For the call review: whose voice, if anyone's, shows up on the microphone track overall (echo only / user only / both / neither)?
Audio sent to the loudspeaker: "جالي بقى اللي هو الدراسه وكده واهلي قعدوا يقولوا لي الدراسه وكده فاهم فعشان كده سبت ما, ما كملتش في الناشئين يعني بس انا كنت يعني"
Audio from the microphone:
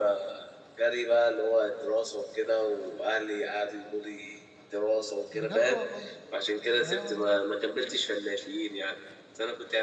both